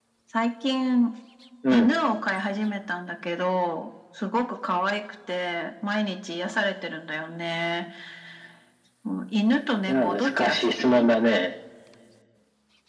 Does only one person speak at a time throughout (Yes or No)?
No